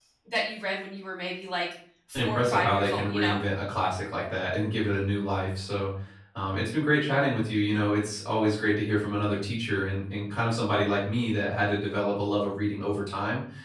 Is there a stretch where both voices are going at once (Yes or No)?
Yes